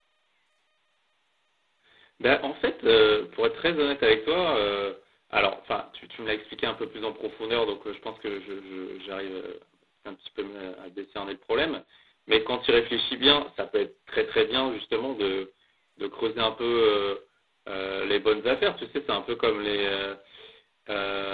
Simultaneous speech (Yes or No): No